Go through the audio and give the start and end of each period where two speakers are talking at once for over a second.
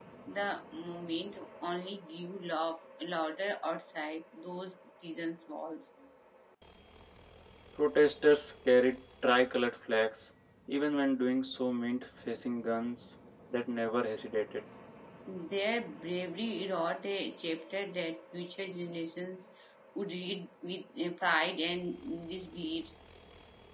none

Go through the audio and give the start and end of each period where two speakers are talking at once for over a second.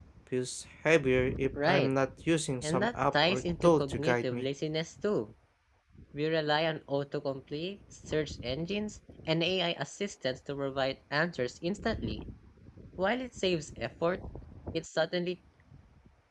2.6-4.5

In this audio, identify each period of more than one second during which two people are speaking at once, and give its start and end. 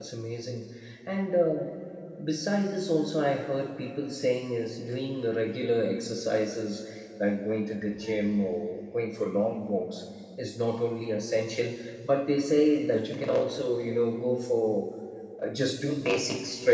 none

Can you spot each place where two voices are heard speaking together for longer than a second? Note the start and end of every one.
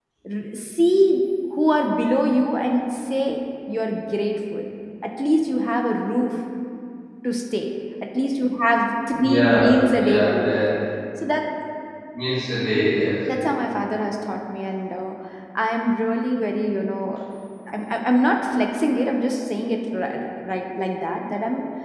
9.1-10.6

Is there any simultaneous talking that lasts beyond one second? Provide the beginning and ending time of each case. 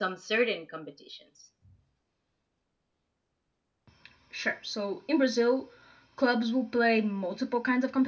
none

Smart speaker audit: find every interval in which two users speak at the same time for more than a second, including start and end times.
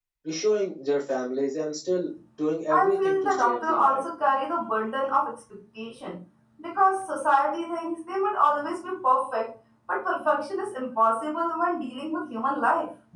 2.7-4.0

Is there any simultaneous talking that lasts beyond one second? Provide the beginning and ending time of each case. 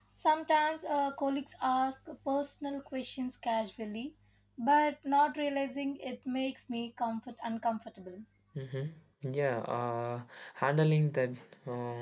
none

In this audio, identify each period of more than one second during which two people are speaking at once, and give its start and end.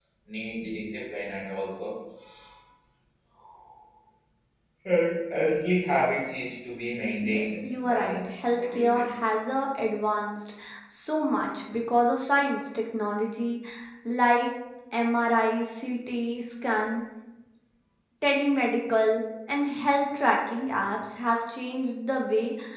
7.2-9.1

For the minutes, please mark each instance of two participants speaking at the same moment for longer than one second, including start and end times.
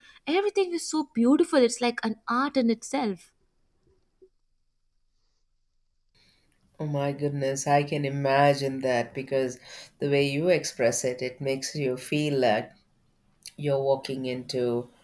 none

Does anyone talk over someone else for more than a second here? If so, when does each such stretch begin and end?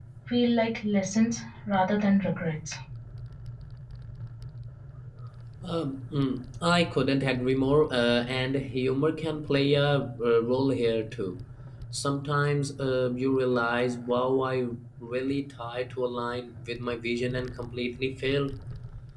none

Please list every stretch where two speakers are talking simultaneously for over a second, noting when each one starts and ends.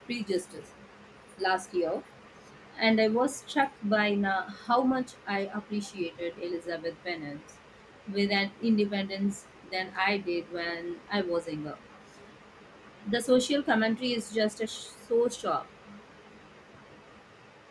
none

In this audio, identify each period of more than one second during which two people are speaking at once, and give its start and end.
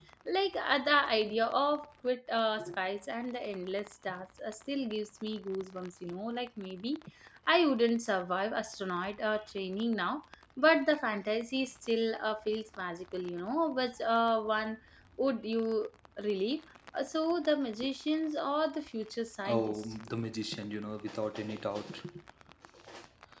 none

